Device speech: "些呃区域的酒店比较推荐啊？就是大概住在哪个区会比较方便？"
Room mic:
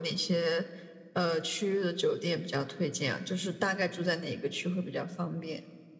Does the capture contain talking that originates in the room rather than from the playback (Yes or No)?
No